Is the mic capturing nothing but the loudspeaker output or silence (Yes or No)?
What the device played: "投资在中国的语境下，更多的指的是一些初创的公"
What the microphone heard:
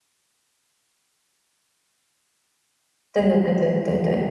No